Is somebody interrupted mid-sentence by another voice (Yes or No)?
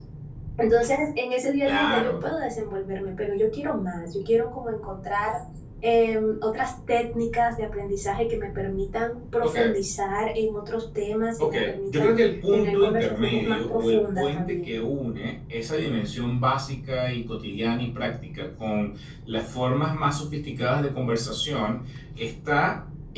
Yes